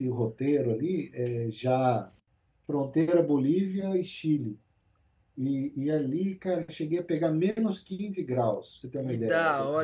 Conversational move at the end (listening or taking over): taking over